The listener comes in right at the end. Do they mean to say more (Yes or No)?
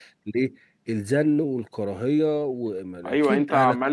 Yes